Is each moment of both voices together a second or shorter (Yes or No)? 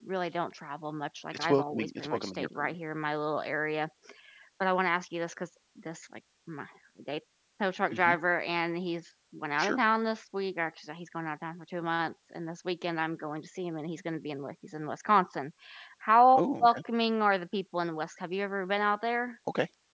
No